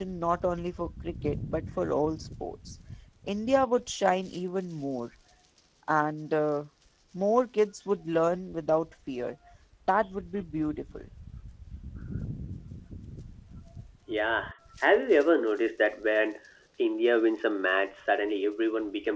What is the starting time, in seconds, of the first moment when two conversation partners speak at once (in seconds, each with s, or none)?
none